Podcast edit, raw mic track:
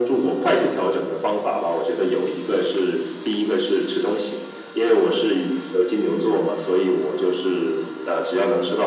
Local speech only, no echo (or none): none